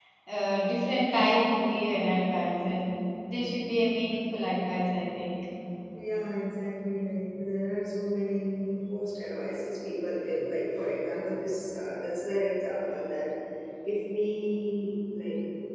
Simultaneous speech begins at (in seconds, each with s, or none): none